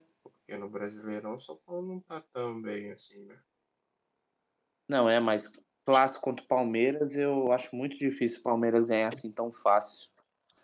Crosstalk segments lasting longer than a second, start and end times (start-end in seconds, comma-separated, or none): none